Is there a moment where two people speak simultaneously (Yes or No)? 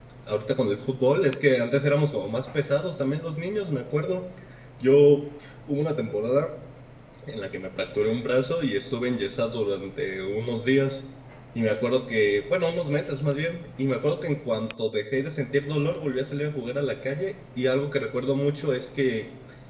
No